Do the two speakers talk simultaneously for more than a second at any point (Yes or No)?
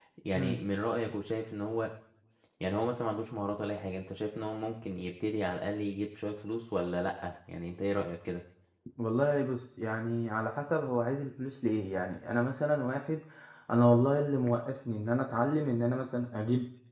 No